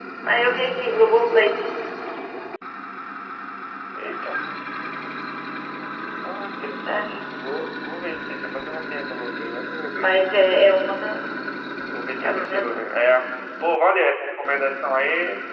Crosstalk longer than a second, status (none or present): none